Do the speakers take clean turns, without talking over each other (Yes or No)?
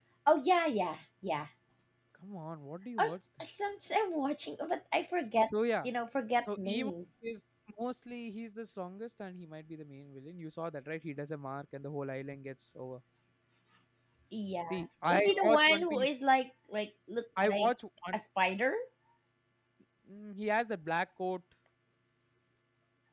No